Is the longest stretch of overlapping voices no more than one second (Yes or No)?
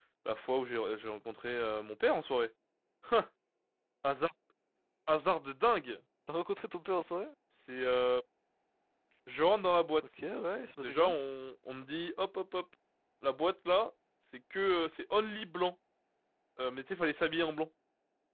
Yes